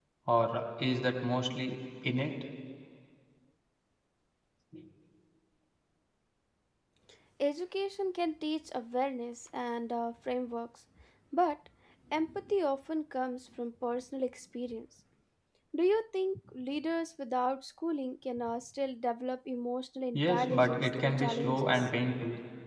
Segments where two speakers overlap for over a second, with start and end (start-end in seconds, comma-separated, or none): 20.1-21.9